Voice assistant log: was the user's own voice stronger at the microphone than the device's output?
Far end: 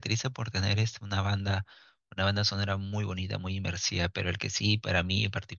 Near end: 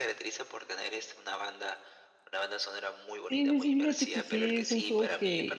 Yes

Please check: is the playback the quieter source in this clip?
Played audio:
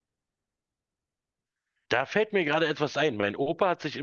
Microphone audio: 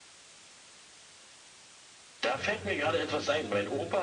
No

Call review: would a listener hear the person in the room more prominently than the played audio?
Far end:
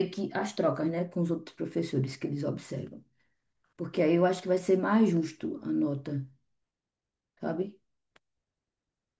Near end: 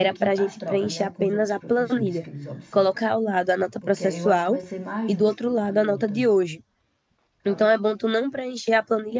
Yes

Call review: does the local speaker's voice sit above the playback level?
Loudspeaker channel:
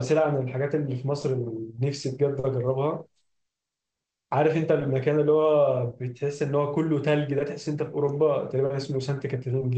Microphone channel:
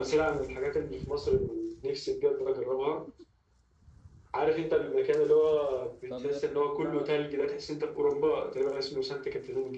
No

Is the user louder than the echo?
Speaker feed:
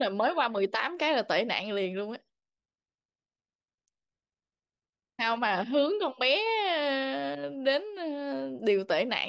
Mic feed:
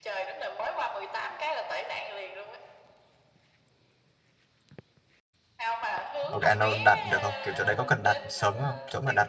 Yes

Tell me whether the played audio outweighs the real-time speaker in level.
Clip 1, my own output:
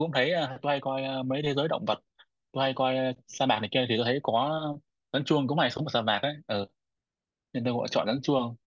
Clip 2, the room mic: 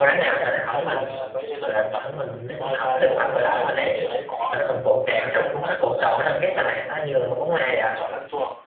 No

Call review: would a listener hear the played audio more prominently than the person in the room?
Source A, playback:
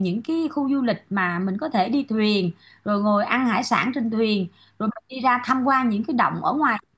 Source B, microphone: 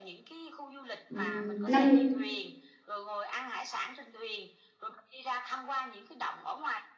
No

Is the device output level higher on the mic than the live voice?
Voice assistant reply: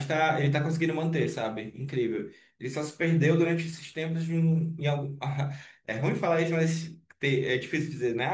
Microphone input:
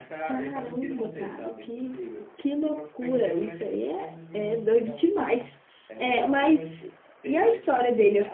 No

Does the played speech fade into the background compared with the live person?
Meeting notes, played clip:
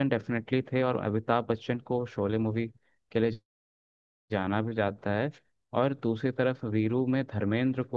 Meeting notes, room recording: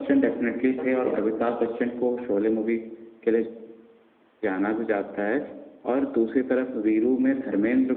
No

